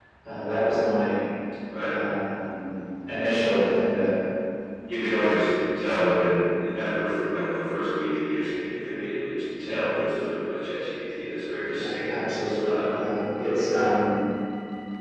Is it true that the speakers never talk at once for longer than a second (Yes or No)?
No